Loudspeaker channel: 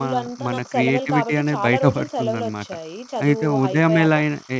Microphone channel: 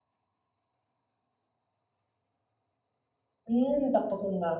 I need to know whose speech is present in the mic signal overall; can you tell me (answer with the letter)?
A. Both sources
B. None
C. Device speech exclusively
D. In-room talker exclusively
D